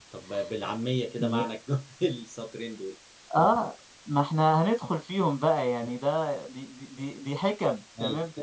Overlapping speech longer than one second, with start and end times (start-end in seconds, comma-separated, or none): none